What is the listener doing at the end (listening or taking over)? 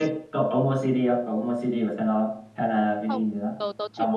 taking over